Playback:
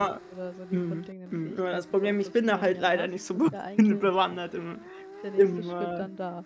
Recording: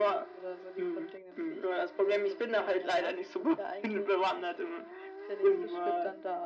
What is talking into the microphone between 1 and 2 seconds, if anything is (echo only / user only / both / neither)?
echo only